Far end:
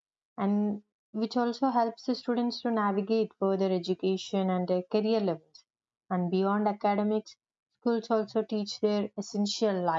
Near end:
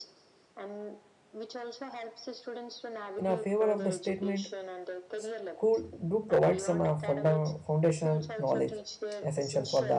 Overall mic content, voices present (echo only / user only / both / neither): both